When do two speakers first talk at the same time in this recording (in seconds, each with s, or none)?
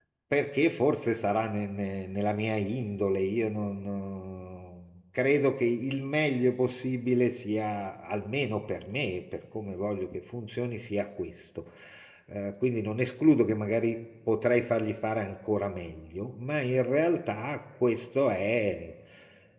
none